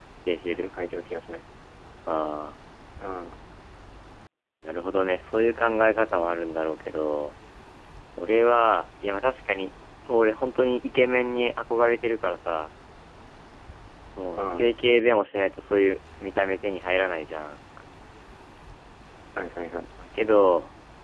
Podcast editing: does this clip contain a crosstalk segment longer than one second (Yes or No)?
No